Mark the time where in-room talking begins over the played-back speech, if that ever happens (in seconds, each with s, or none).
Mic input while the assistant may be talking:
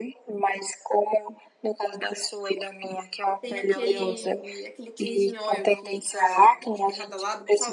3.4 s